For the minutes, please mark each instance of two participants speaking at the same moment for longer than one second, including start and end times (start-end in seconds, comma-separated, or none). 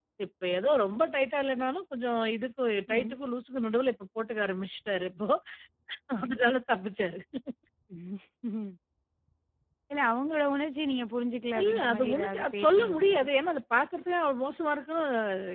11.6-13.2